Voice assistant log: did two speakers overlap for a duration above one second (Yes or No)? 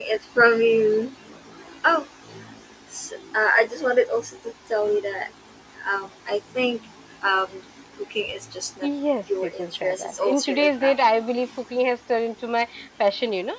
Yes